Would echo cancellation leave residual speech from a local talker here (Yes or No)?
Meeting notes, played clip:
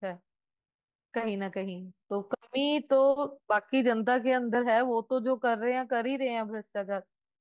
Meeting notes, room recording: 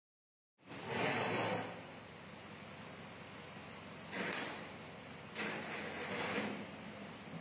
No